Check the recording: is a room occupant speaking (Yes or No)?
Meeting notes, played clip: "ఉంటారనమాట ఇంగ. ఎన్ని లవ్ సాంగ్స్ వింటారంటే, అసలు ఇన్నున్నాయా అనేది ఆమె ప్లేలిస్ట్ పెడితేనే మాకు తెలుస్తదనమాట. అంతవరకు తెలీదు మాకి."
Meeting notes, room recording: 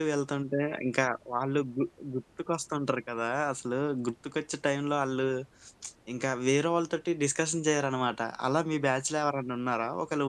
Yes